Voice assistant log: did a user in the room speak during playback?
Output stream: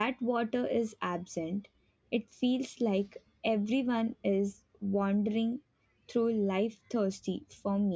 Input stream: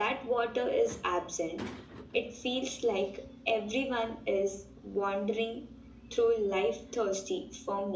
No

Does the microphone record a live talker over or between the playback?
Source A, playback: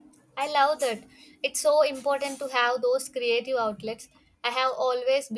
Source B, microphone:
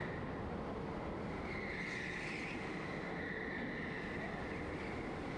No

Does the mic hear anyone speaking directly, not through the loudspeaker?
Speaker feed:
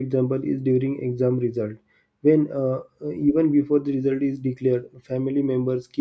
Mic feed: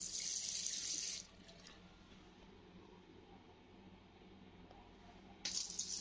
No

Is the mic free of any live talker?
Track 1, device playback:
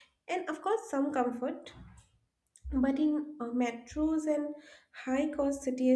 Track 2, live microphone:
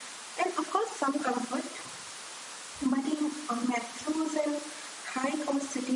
Yes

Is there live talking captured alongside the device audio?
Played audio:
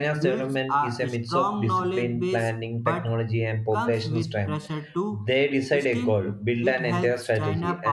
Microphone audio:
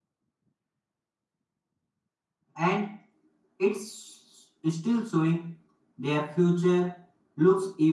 Yes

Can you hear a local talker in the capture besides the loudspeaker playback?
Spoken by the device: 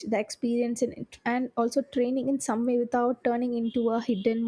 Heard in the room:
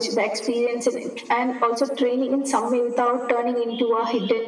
No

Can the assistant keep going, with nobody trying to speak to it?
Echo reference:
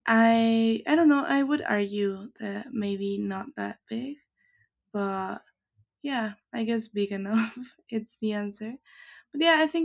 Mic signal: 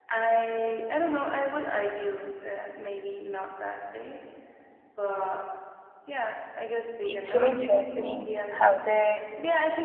No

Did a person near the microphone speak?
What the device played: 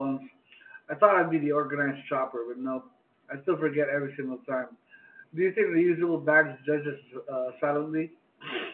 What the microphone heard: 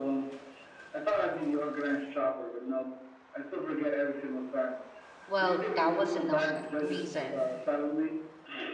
Yes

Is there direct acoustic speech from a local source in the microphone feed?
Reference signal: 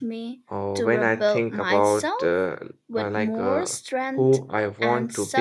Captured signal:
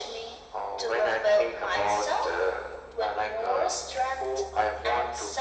No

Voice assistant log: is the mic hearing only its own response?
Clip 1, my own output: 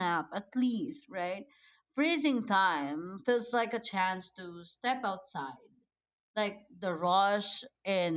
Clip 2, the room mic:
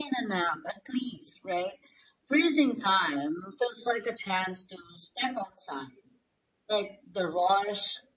Yes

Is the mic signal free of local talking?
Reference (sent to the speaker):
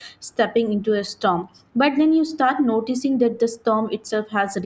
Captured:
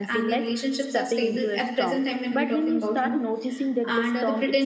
No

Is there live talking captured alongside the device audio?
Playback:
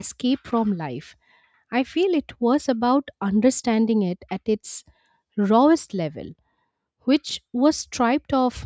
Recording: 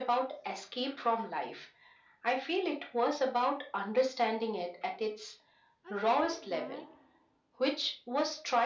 Yes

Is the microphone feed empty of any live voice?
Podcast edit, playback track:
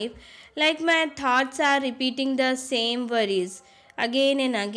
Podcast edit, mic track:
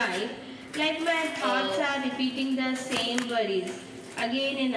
No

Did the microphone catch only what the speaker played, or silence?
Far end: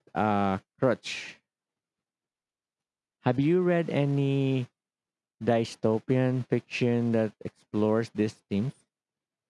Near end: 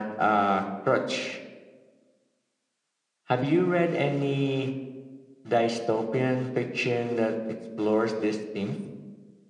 Yes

